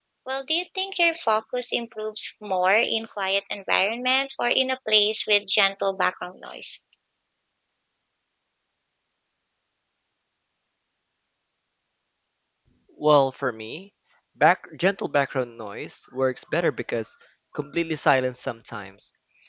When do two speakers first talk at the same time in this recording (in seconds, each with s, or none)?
none